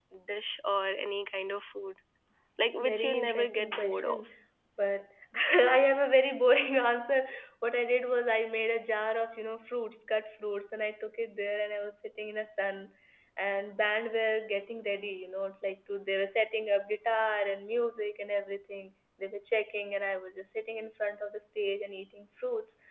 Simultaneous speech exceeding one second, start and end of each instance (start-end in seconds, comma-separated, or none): 2.8-4.3